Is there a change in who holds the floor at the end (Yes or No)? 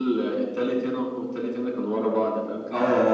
Yes